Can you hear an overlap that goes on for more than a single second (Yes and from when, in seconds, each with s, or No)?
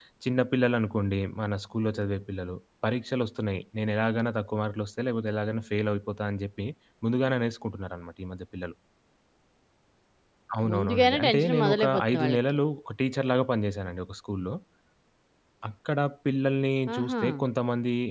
Yes, from 10.7 s